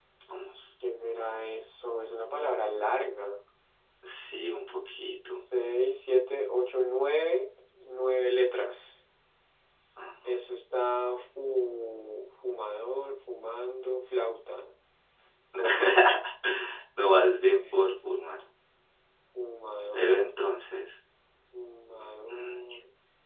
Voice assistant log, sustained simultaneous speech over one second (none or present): none